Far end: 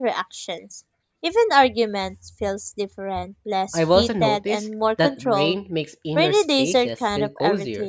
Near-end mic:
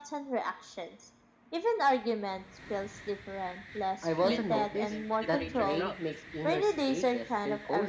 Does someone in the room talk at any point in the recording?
Yes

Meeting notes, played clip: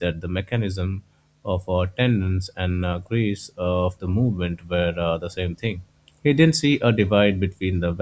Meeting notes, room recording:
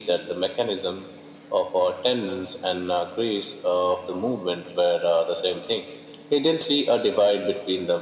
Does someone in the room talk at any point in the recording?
No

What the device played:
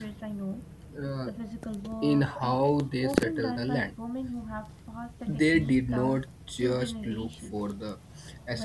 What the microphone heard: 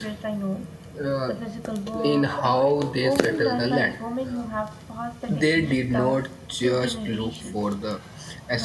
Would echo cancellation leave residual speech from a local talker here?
Yes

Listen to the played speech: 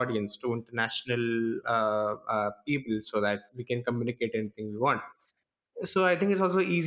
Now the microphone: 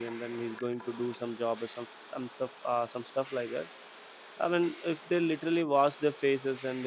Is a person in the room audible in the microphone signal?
Yes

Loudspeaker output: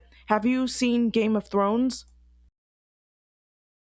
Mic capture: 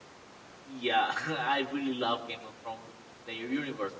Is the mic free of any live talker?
No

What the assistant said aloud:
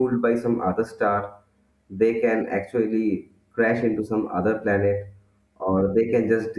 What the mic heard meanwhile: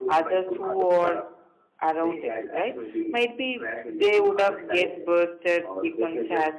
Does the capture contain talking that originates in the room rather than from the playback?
Yes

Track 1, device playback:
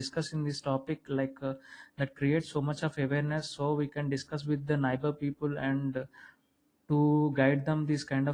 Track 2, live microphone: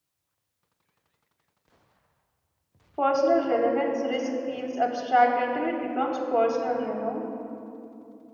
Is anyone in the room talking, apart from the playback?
Yes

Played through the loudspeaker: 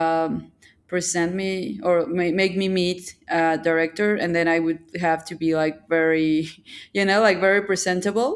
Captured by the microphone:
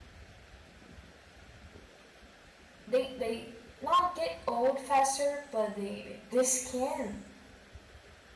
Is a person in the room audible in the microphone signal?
Yes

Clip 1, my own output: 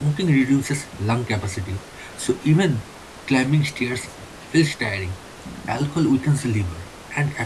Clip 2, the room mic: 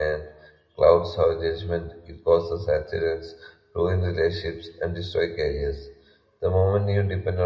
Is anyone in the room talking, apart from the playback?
Yes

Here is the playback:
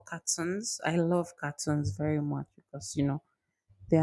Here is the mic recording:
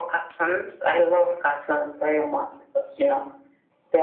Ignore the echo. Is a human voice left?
No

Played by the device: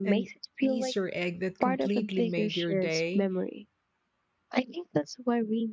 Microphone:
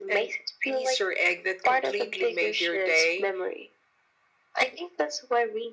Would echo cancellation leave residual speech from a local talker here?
No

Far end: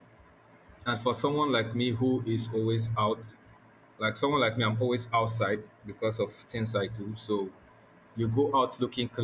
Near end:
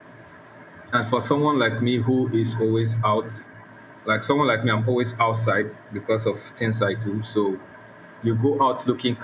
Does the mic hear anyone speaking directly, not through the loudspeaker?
No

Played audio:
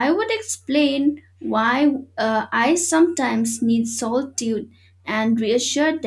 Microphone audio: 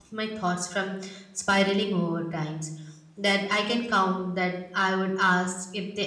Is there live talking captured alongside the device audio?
Yes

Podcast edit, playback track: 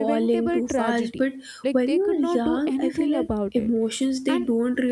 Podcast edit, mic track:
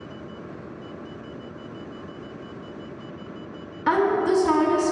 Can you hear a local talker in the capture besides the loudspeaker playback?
Yes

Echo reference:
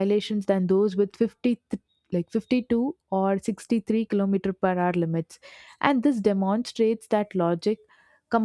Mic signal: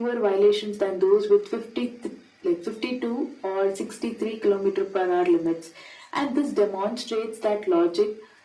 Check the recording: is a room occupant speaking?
No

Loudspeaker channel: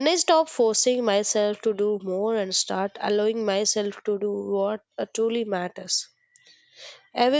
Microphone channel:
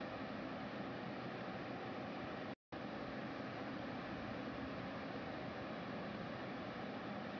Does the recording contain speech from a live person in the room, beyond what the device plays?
No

